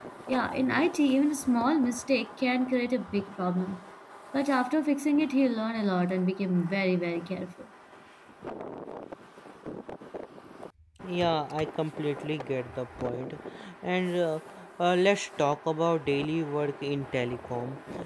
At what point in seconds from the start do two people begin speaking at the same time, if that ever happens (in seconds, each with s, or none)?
none